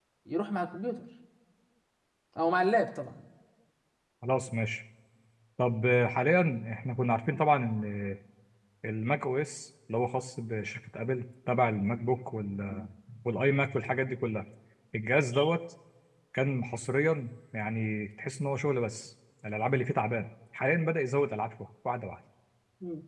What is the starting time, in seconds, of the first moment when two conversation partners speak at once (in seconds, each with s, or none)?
none